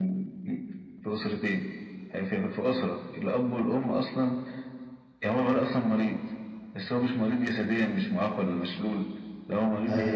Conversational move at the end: listening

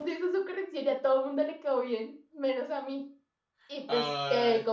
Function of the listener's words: listening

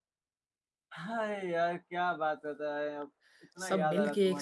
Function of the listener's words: taking over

